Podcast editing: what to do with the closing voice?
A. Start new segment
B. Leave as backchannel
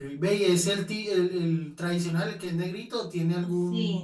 A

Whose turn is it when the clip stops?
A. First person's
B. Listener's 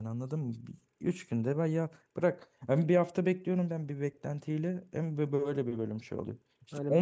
A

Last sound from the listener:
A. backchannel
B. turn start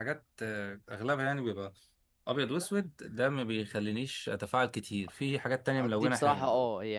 B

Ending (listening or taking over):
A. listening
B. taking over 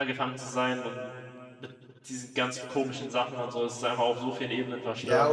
B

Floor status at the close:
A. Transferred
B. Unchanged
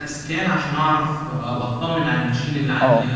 A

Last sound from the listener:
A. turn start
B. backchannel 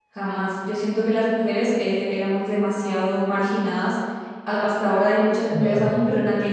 B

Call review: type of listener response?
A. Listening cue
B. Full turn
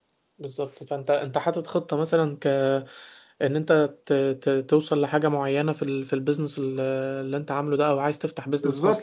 B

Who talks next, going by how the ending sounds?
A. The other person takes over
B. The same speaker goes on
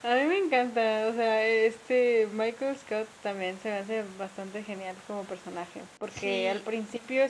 B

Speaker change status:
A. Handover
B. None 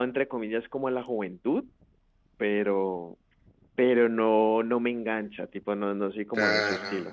A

